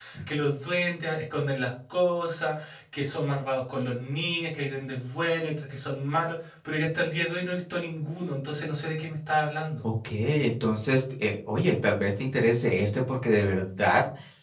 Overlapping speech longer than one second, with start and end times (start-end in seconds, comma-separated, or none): none